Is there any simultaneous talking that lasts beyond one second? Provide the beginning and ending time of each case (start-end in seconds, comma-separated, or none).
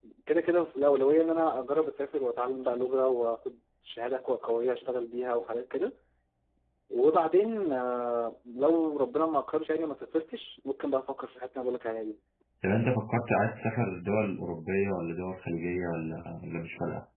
none